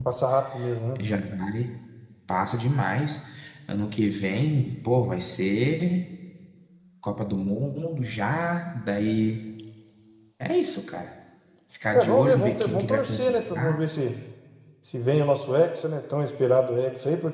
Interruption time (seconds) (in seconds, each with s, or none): 11.9 s